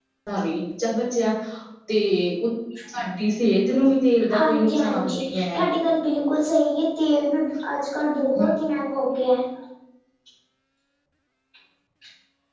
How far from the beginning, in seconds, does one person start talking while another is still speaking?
4.2 s

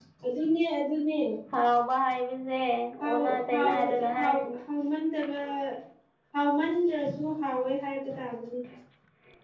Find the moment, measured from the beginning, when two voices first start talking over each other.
3.0 s

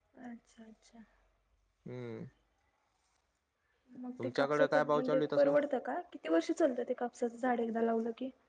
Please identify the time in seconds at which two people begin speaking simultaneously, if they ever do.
4.2 s

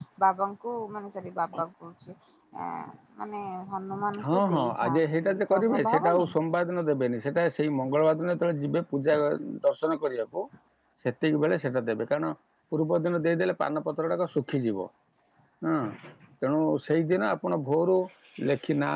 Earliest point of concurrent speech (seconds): 4.1 s

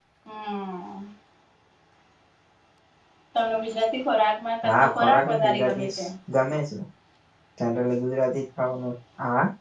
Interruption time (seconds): 4.6 s

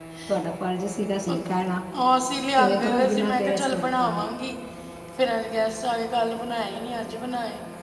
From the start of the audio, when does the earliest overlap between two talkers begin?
2.6 s

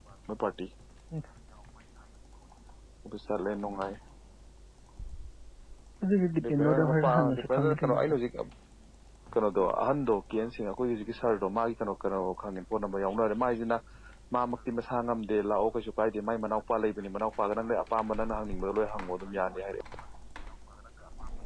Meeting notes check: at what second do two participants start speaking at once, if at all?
6.4 s

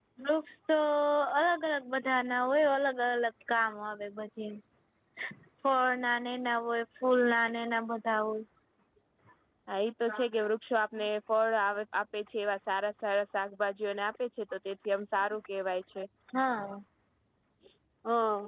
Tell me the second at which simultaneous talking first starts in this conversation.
none

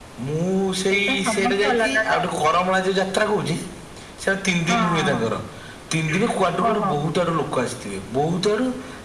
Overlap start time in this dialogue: 0.9 s

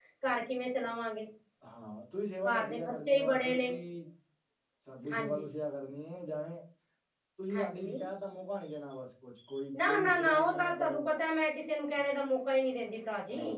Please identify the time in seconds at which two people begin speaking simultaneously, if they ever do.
2.5 s

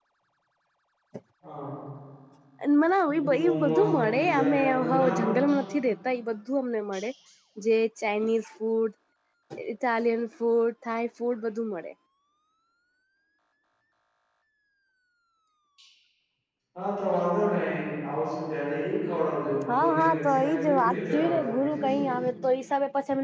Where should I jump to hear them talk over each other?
3.1 s

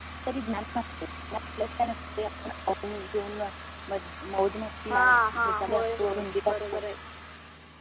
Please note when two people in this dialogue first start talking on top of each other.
4.9 s

